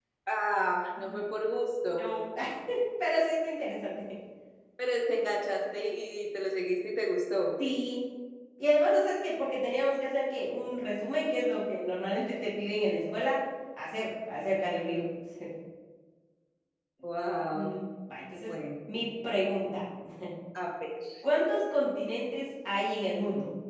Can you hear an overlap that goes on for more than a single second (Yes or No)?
No